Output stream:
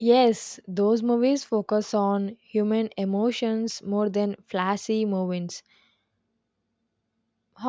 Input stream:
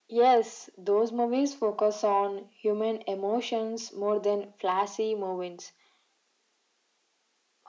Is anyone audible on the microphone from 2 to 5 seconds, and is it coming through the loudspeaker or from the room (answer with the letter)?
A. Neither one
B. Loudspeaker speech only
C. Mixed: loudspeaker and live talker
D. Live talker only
B